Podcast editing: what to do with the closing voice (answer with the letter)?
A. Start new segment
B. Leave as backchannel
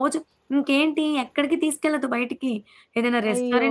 B